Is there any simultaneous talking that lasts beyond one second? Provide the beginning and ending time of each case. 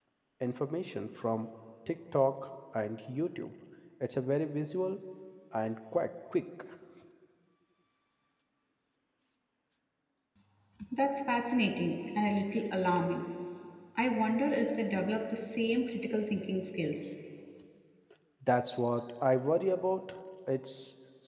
none

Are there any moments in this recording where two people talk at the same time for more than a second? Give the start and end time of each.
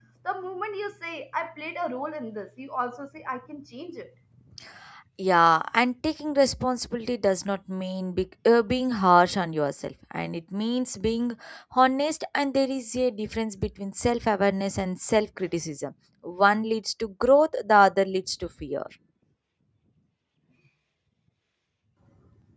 none

